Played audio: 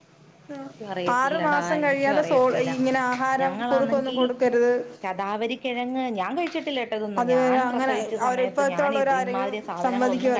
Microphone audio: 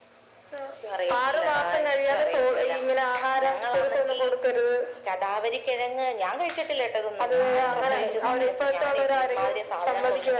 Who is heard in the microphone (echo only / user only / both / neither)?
both